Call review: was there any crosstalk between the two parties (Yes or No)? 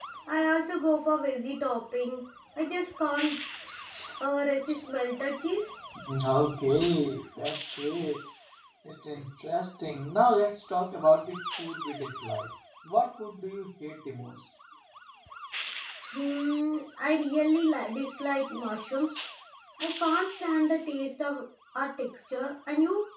No